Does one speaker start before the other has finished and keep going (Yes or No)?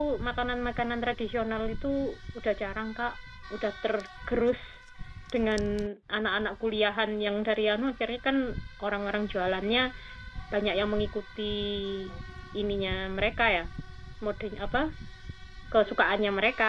No